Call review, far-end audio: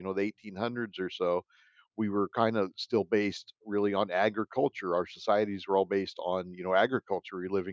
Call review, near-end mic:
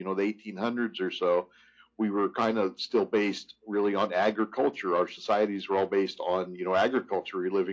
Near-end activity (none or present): none